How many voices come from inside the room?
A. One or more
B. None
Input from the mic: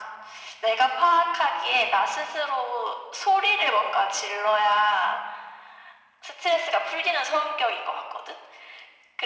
B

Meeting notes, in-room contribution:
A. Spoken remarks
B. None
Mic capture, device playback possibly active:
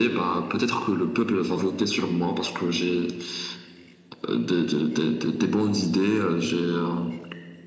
B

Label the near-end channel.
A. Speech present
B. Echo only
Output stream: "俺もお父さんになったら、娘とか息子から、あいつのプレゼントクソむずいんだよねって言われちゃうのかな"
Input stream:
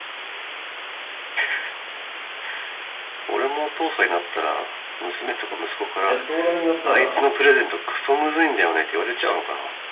A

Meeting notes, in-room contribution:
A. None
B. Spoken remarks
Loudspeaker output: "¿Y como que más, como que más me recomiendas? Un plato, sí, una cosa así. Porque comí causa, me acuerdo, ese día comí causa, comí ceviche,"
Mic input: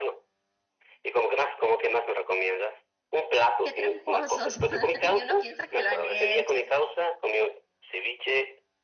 B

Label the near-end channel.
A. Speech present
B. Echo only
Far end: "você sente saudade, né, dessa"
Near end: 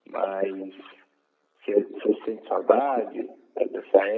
B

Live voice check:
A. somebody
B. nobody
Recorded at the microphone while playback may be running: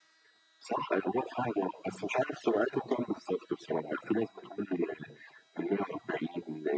B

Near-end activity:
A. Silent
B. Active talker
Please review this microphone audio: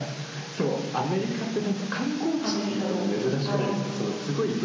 B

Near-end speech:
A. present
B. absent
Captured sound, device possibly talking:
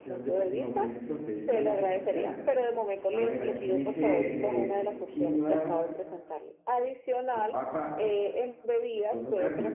A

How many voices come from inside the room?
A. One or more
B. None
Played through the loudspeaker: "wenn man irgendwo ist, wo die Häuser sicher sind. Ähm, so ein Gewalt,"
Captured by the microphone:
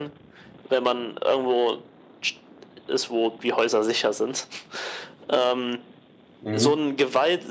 A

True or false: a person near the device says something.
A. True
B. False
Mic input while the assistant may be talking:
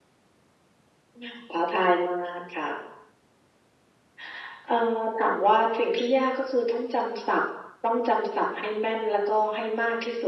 B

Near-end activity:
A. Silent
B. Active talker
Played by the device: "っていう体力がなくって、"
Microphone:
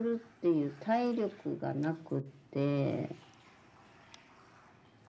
A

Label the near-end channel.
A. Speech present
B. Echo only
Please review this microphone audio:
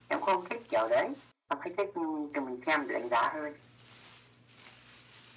B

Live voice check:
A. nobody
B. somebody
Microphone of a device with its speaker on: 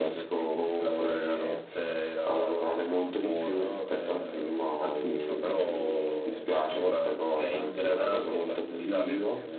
A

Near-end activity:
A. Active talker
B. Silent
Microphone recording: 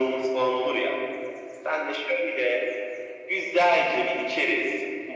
B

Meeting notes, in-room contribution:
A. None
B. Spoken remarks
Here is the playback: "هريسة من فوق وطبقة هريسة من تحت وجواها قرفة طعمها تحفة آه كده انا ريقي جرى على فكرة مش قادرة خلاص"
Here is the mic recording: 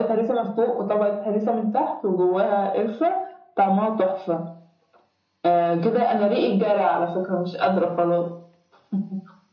A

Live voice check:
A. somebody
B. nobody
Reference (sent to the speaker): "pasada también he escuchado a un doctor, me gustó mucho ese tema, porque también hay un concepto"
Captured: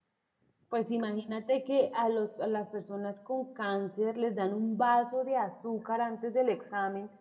A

